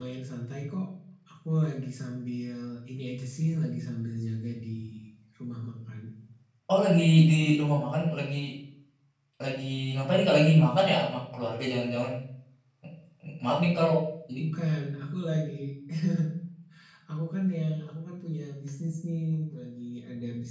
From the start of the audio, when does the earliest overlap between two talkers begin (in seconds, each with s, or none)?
none